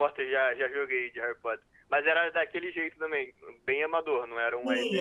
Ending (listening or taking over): taking over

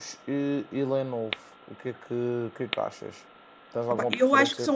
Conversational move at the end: taking over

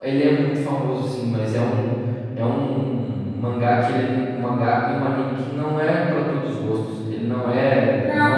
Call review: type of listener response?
taking over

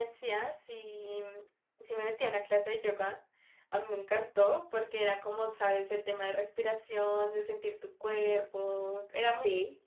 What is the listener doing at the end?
listening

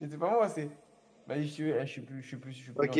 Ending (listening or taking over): taking over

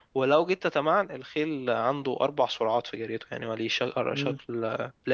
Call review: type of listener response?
listening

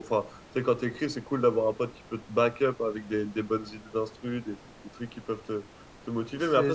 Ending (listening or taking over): listening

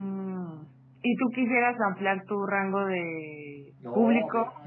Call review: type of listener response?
taking over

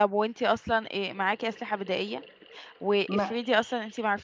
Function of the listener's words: listening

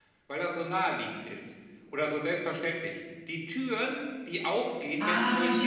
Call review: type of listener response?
taking over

